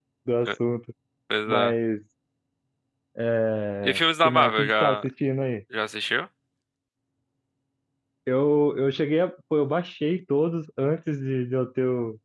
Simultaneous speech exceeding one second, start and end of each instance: 3.8-5.1

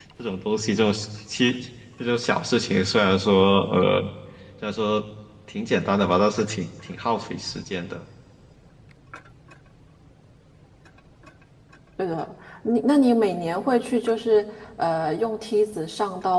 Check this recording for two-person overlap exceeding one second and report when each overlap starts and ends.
none

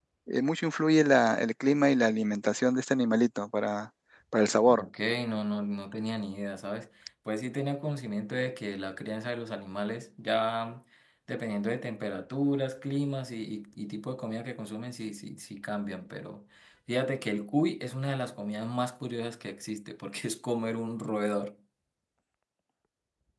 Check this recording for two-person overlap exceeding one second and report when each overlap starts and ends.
none

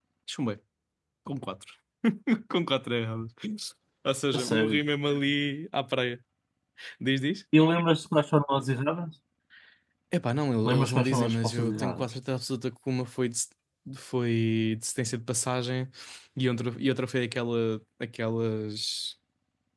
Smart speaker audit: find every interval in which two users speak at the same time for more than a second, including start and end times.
10.6-12.0

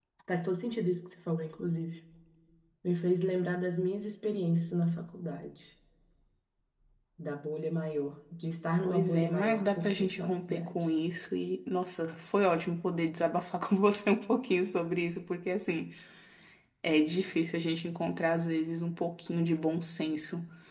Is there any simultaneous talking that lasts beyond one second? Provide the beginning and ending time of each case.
8.8-10.7

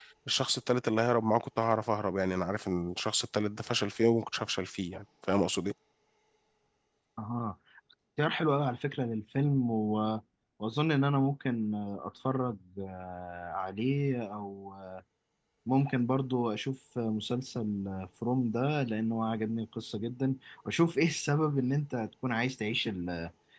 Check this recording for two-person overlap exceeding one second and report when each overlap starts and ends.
none

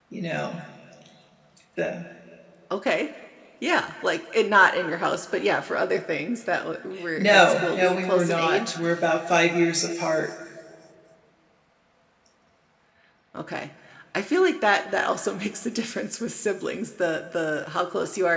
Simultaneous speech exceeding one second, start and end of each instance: 7.2-8.7

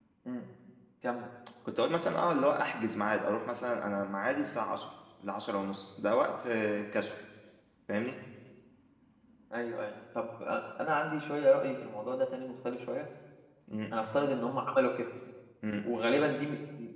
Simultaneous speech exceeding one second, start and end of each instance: none

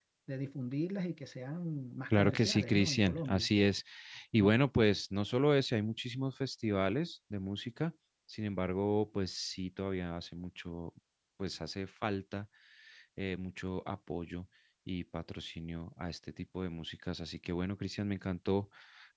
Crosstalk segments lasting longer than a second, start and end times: 2.1-3.5

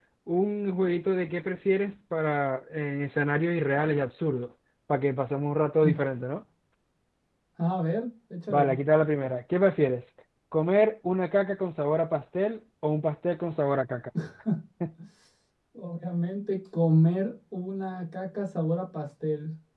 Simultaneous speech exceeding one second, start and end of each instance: none

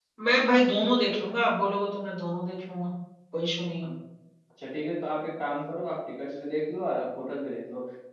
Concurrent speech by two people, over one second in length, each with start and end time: none

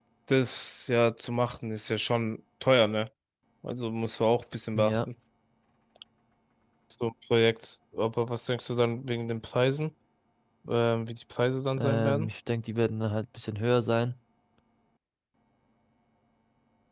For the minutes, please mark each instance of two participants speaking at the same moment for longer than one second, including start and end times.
none

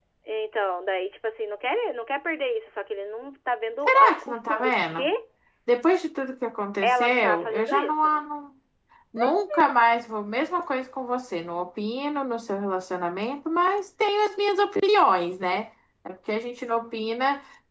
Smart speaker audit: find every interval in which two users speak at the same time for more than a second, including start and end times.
3.8-5.1, 6.8-8.2

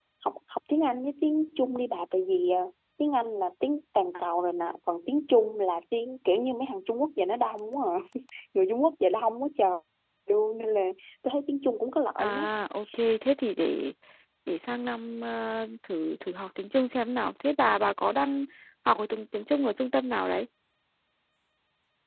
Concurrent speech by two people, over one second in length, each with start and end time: none

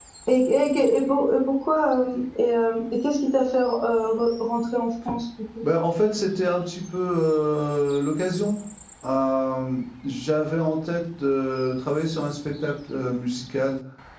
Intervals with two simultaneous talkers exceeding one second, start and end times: none

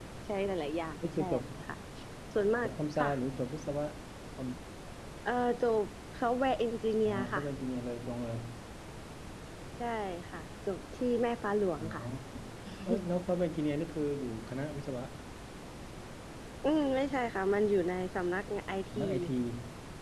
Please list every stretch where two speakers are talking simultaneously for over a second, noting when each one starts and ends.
none

